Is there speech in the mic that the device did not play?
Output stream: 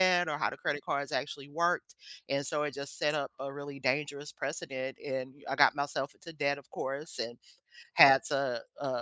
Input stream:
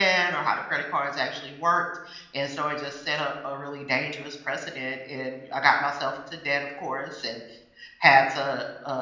No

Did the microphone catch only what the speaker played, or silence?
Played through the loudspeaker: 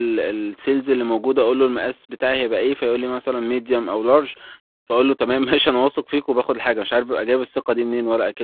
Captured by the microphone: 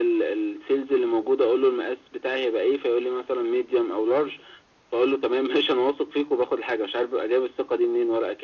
Yes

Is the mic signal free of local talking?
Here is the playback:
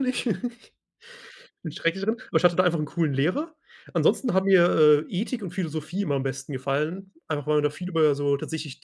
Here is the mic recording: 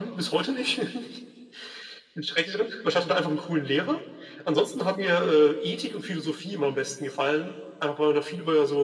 Yes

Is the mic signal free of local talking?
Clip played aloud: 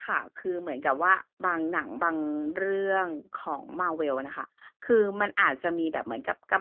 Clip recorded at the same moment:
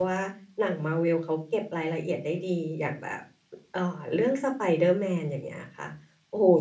No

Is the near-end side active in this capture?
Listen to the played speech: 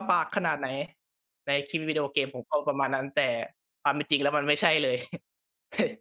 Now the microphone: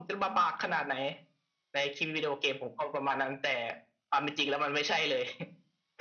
No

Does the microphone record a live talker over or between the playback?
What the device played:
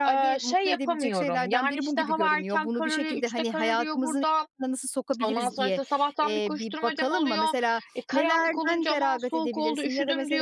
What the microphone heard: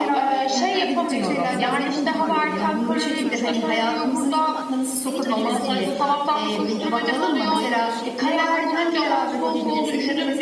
Yes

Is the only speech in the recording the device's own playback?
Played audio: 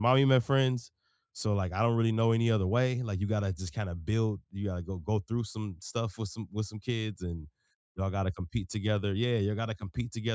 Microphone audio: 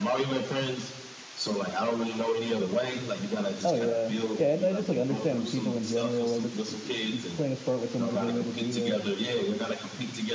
No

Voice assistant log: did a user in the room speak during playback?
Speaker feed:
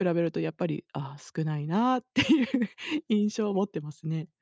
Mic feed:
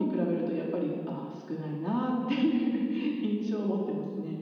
No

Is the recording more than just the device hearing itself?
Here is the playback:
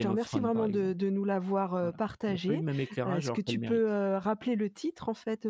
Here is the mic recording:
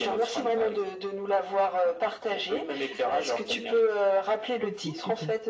Yes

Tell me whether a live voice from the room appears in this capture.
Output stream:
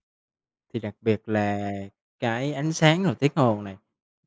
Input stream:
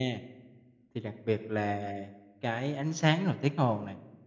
No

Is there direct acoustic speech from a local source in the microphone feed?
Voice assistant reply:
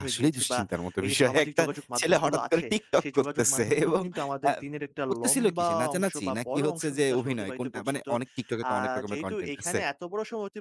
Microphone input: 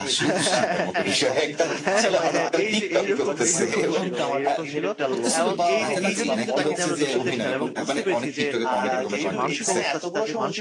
Yes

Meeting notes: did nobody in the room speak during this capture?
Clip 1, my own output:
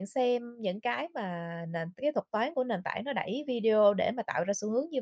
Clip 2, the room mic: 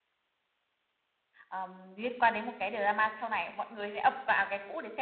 No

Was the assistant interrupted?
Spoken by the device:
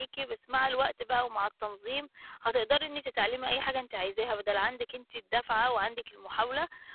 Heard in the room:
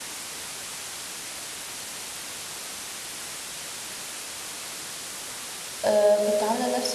Yes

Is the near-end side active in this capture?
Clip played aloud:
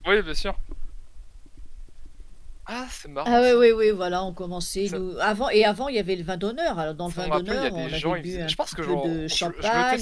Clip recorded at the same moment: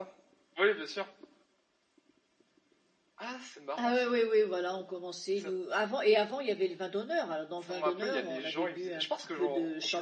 No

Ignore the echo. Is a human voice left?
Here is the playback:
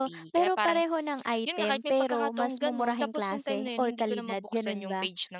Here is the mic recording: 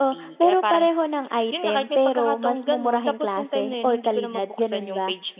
No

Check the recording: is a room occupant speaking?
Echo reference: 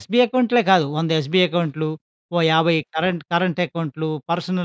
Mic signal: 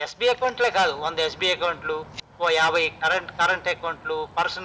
No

